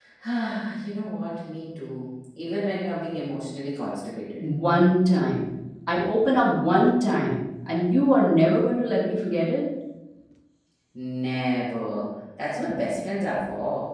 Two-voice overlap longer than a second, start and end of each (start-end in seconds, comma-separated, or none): none